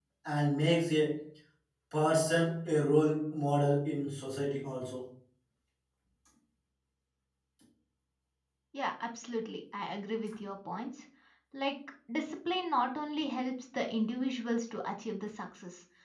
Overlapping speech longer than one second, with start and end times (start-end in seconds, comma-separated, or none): none